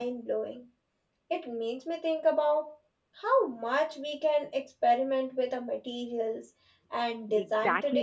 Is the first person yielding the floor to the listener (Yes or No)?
Yes